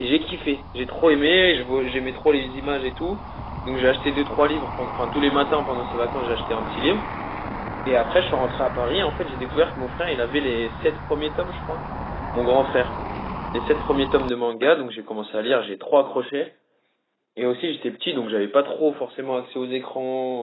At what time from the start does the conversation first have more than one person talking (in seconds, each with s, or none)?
none